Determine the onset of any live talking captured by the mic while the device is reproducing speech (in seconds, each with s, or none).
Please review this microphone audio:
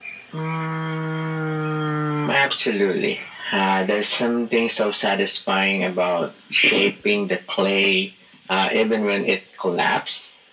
none